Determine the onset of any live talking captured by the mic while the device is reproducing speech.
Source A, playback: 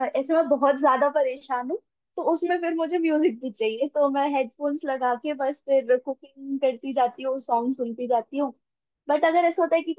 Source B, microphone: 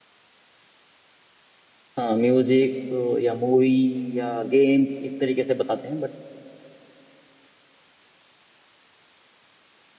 2.0 s

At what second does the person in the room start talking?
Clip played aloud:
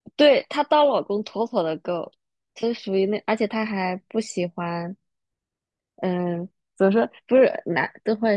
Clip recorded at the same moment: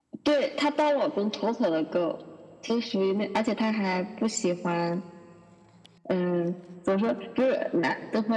none

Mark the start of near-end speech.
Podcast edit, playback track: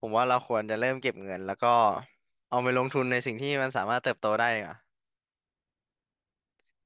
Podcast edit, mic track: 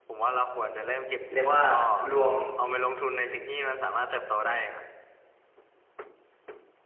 1.3 s

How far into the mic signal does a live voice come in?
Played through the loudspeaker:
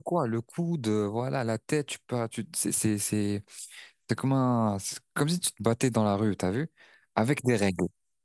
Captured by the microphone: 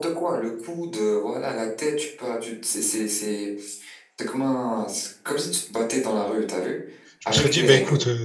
7.2 s

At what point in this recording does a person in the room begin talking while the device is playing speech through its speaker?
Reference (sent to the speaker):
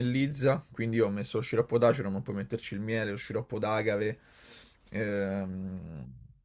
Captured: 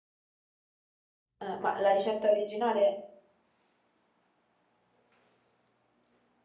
1.4 s

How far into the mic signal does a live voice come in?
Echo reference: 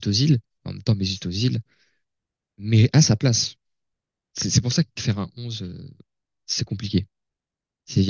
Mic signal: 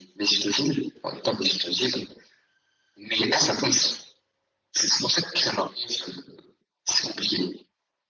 none

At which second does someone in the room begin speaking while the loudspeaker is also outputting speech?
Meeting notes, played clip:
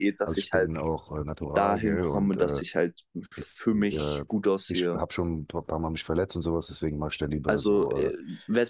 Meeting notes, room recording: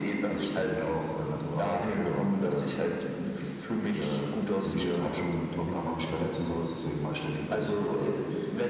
4.6 s

